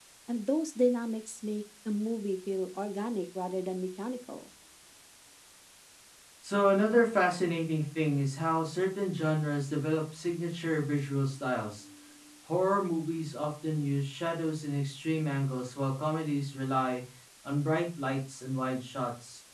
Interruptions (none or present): none